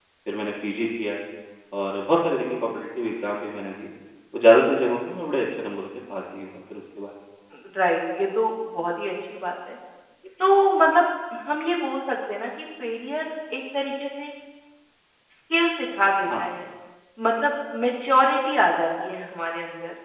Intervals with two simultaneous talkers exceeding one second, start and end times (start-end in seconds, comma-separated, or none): none